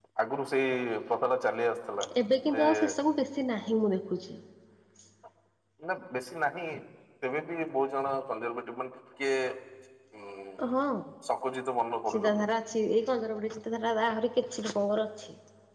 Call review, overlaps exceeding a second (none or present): none